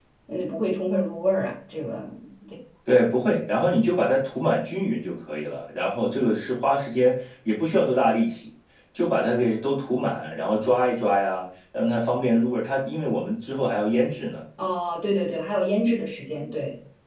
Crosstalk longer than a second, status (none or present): none